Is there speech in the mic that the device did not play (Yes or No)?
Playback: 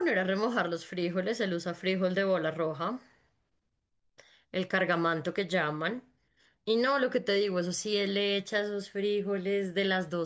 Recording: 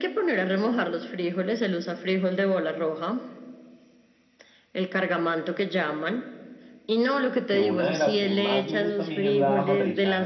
Yes